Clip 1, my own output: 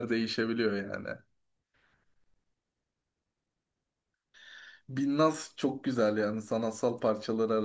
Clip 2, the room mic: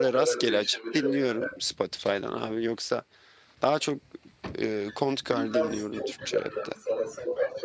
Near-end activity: present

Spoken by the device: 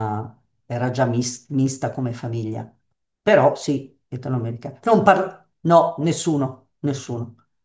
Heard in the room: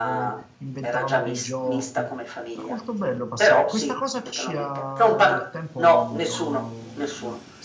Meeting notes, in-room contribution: present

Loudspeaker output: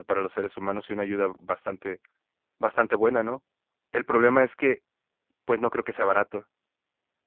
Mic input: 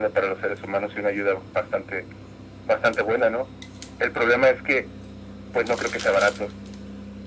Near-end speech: none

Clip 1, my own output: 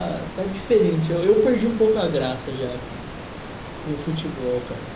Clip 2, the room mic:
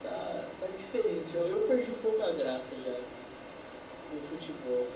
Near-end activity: none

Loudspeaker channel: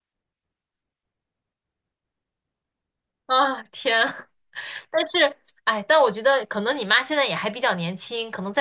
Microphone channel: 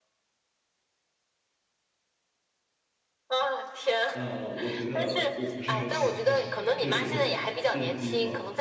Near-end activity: present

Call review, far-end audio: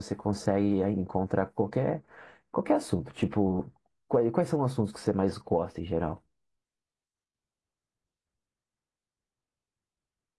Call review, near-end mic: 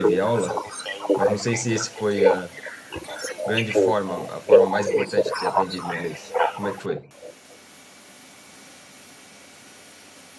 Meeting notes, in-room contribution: present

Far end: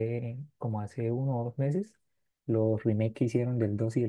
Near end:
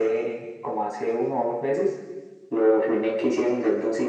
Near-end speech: none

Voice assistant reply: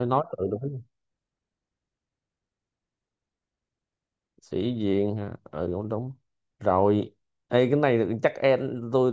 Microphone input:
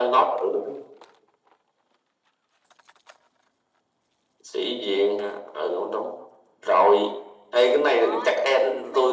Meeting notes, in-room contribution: present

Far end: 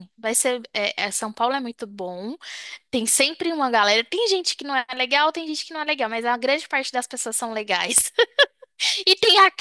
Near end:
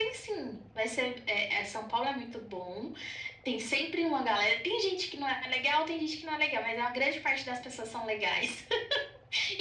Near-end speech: none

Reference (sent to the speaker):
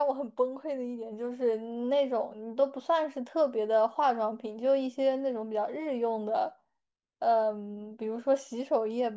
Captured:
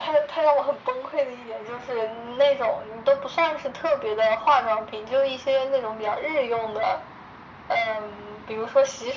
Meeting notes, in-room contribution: none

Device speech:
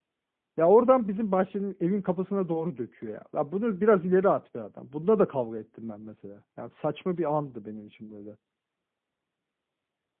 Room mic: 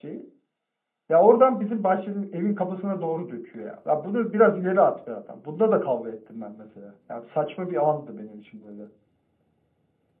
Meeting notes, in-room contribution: none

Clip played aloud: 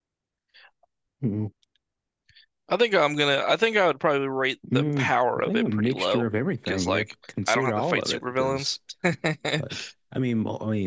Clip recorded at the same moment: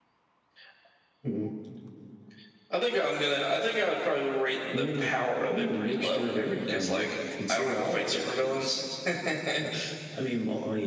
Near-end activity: none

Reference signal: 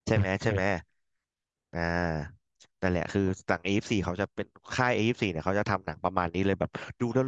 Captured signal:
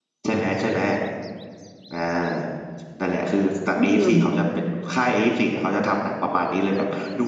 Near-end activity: present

